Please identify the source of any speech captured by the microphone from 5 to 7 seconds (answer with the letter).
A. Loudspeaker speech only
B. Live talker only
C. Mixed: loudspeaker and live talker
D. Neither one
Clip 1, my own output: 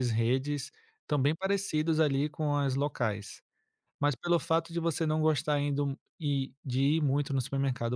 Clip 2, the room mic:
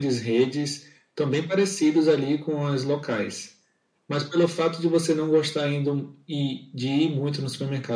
A